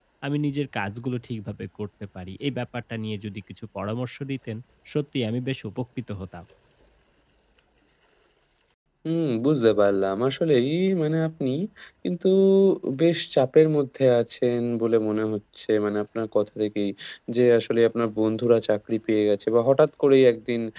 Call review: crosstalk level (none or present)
none